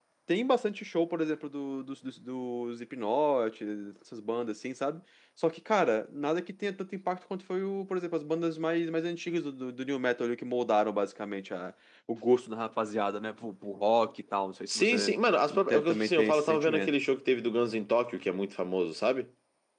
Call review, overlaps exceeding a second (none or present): present